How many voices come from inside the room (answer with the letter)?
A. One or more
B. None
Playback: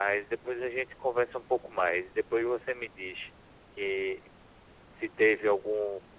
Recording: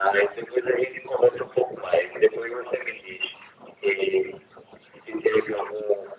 B